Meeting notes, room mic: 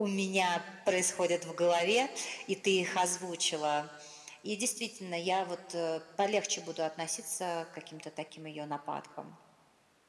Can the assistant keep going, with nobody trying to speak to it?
Yes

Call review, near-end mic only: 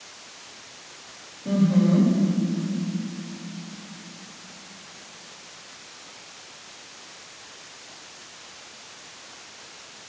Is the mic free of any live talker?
No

